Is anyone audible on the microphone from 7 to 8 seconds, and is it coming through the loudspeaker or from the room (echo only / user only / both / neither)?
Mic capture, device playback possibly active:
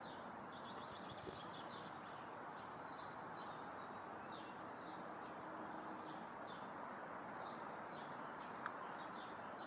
neither